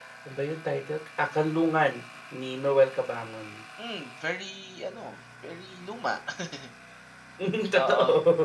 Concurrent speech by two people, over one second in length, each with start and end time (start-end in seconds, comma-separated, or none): none